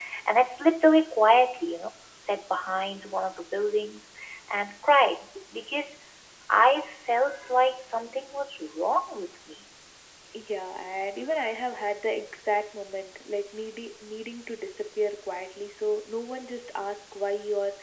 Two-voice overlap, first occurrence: none

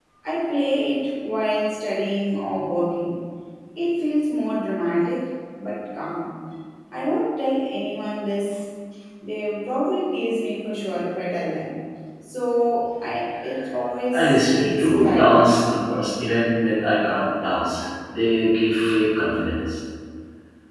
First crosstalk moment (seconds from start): 14.1 s

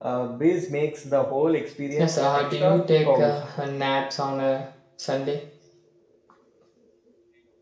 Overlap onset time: 2.0 s

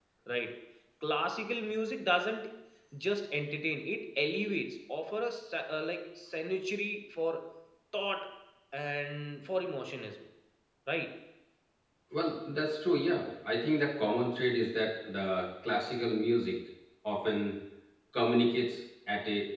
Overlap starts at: none

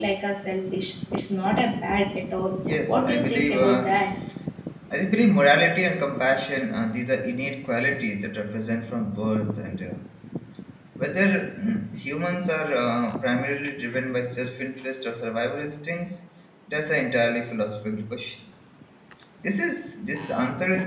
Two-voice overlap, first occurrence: 2.6 s

